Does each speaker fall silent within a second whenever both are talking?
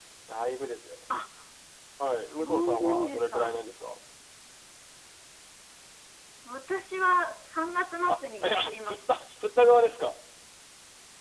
No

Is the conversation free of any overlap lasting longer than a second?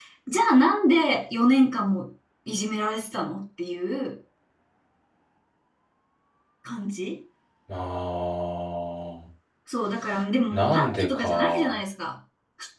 No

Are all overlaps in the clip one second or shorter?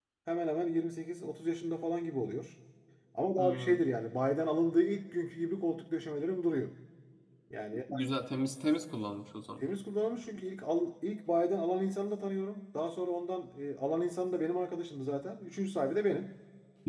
Yes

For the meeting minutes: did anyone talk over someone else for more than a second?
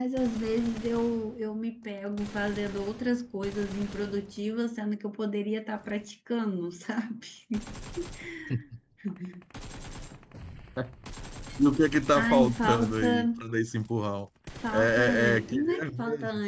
Yes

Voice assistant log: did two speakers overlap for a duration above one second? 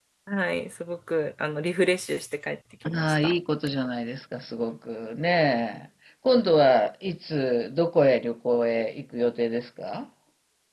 No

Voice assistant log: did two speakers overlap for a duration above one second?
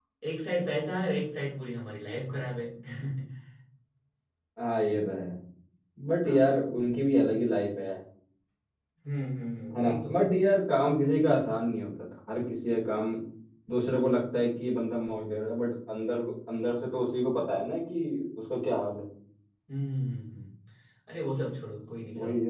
No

